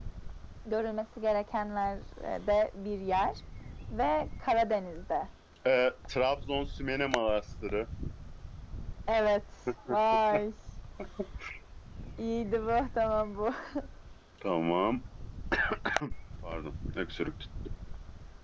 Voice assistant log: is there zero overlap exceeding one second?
Yes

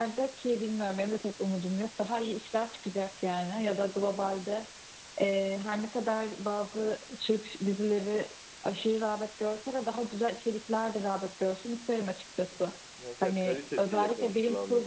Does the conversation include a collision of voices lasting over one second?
Yes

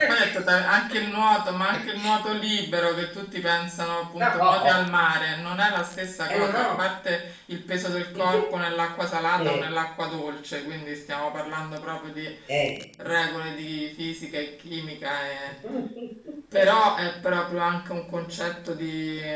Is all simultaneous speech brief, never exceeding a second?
Yes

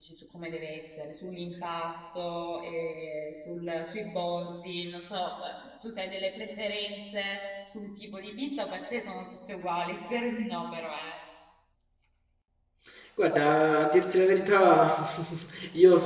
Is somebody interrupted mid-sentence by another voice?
No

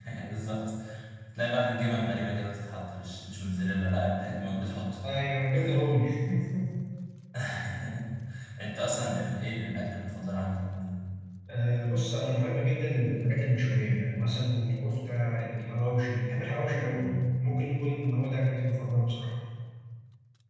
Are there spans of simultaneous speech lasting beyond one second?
No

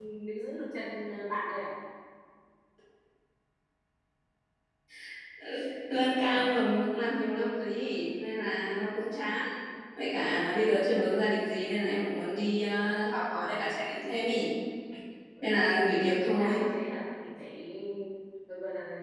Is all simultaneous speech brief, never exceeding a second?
No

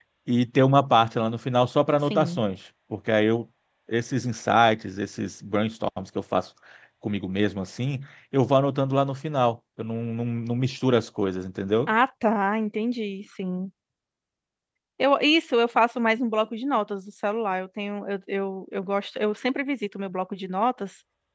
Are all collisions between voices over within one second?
Yes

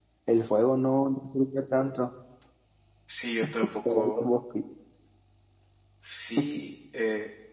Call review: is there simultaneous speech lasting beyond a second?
No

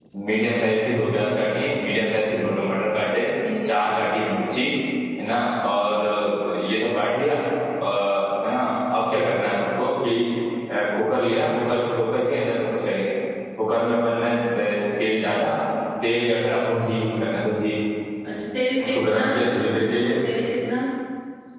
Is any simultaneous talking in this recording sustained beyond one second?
No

